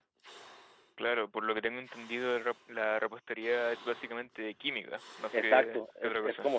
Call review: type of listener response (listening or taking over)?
taking over